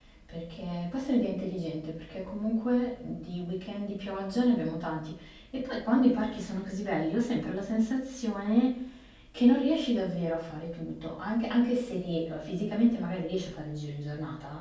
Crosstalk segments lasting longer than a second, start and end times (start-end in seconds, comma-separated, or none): none